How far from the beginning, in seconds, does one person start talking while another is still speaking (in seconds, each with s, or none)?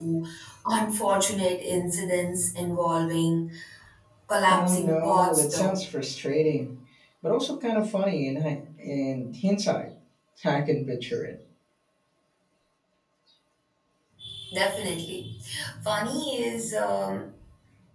4.5 s